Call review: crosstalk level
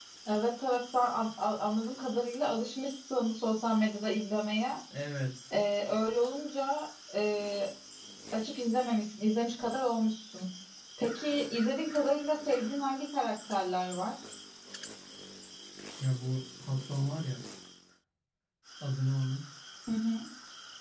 none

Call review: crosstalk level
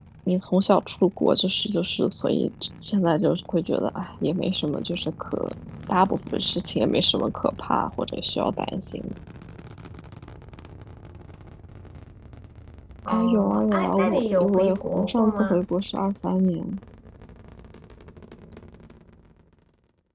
present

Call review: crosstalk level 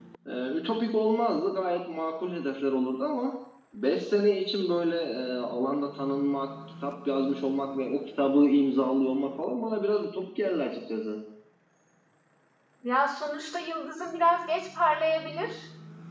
none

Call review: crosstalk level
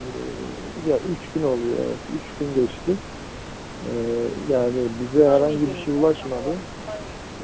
present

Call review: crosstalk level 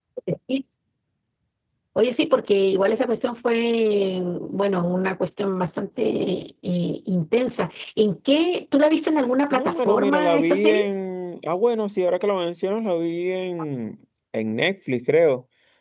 present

